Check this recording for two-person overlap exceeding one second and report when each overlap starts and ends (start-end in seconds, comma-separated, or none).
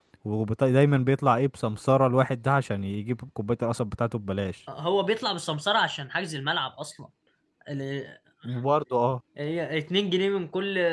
none